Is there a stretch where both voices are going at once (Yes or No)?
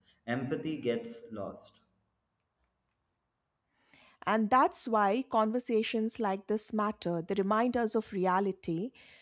No